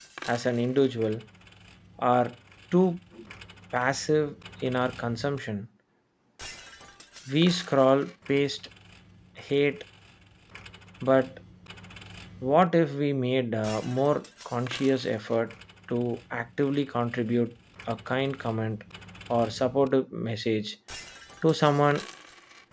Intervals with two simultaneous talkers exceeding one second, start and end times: none

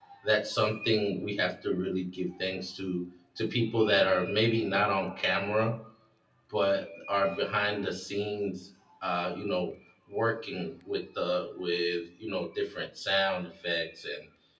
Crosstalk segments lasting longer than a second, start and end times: none

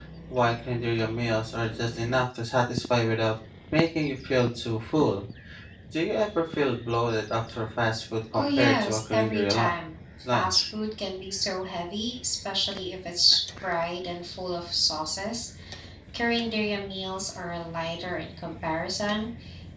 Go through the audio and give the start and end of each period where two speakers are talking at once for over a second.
8.3-9.7

